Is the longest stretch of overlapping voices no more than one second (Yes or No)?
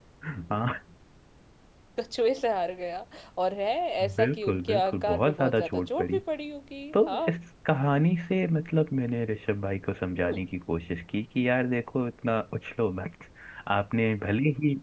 No